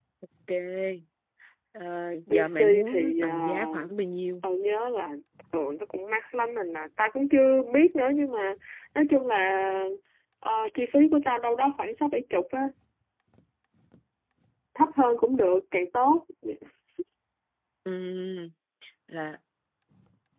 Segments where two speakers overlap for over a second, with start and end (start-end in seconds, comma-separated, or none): 2.3-3.9